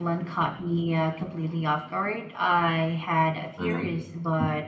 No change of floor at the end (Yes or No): Yes